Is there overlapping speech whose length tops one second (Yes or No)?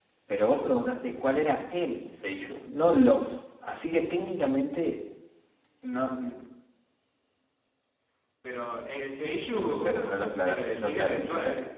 Yes